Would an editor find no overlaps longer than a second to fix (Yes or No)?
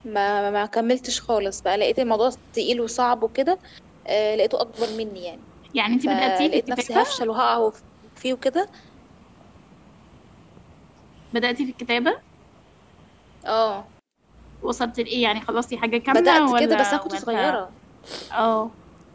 No